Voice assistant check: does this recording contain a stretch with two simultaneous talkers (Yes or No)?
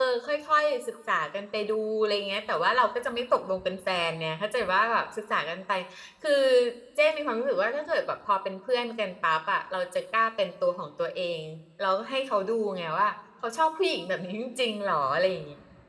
No